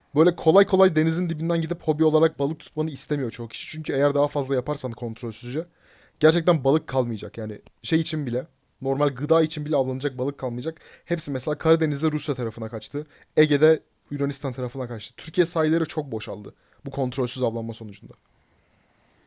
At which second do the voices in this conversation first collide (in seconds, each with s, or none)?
none